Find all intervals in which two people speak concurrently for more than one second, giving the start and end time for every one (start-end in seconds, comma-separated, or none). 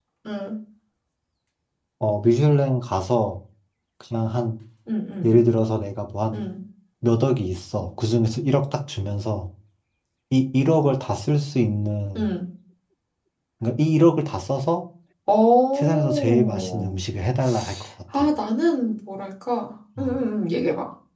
15.8-17.0